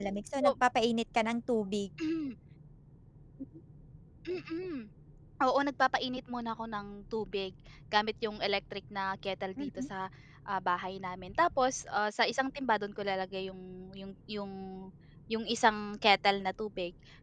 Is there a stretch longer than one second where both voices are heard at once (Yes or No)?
No